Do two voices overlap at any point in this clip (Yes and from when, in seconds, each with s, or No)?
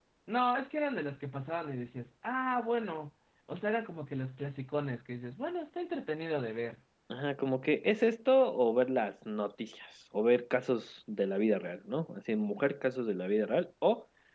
No